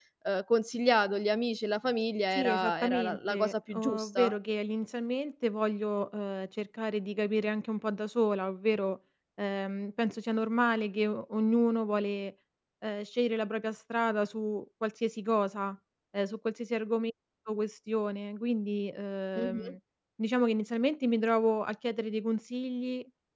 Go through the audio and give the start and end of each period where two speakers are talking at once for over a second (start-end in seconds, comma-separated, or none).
2.3-4.4